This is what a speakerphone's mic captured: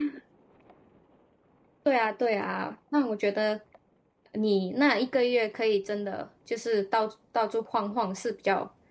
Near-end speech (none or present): present